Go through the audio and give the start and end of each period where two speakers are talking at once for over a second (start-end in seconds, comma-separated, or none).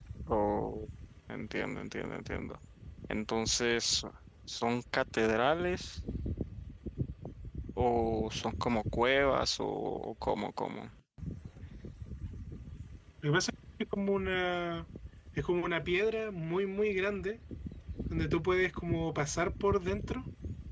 none